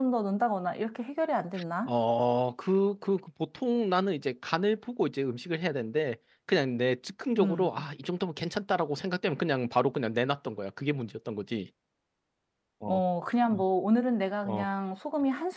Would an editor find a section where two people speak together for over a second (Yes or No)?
No